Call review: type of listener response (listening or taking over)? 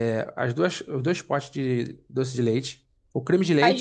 taking over